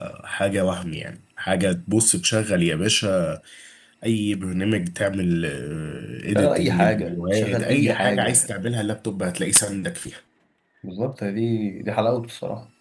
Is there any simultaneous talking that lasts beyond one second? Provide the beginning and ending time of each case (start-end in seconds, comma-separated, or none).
6.4-8.5